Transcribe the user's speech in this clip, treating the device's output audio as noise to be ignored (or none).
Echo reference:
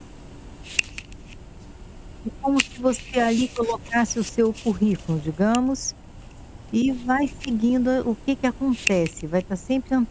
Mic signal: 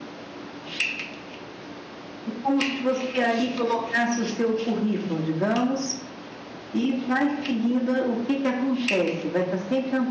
none